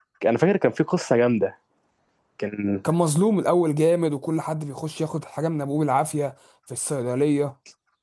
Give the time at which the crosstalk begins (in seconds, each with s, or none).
none